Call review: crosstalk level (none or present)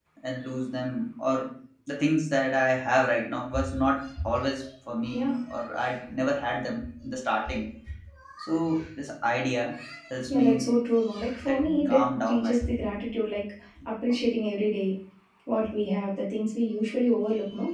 present